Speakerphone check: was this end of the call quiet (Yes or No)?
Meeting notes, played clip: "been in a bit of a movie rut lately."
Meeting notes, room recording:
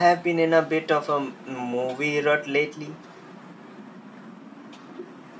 Yes